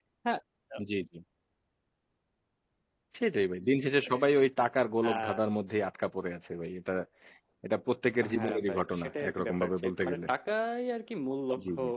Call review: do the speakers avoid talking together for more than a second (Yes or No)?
No